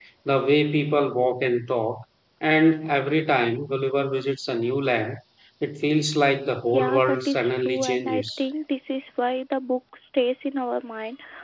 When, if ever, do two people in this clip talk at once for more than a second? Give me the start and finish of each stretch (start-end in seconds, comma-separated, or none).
6.7-8.4